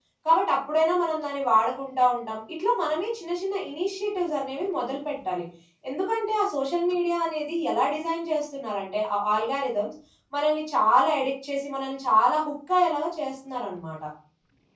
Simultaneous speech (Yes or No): No